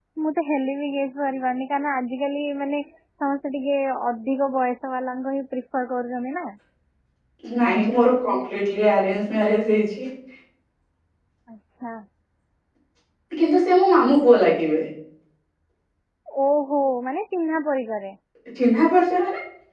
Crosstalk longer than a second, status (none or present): none